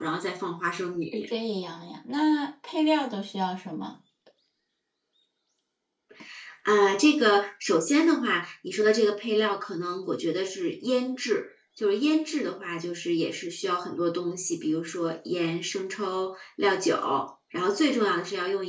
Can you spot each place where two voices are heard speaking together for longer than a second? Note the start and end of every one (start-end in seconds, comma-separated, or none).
none